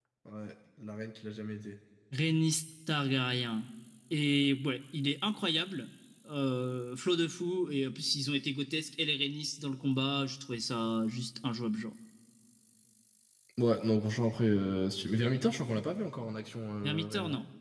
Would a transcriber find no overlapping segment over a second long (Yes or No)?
Yes